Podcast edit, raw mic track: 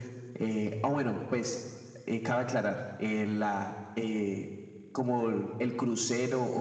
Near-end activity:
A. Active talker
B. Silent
B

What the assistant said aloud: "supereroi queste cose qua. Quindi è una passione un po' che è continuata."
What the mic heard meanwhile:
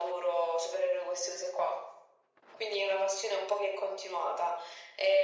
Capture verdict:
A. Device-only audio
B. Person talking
A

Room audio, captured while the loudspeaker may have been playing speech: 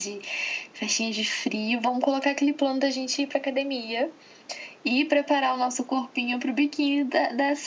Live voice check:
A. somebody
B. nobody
B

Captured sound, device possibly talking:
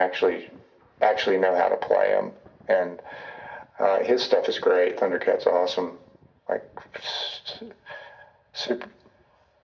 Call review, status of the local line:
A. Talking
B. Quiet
B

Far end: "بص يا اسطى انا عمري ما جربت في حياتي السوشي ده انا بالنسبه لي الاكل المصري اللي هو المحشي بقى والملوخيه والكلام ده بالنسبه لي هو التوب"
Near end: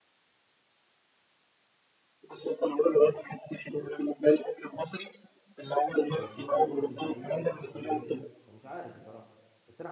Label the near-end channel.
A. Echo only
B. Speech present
B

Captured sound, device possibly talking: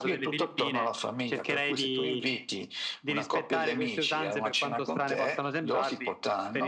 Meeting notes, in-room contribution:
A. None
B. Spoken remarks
A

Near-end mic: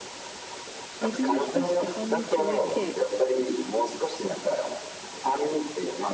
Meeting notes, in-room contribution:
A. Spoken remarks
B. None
A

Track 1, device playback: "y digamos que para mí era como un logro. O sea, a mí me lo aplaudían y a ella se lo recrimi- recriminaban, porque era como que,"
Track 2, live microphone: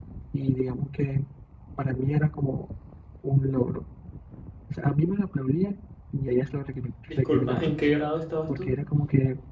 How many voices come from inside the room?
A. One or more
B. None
A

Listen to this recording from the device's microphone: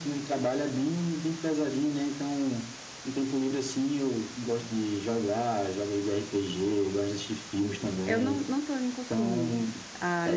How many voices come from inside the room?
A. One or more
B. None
A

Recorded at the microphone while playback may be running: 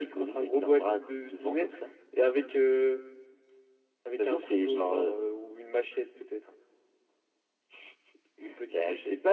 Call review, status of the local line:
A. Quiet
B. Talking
A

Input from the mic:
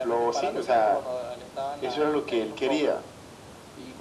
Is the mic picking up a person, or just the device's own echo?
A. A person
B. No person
B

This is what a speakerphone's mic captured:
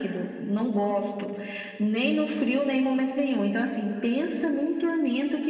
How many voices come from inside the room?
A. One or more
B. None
B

